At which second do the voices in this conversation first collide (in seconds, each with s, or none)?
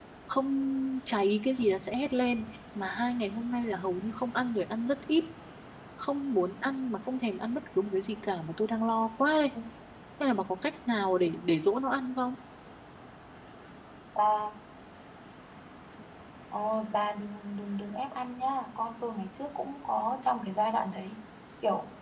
none